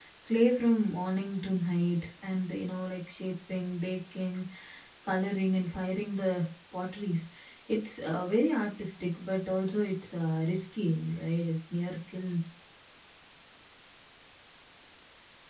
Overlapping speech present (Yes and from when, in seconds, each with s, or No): No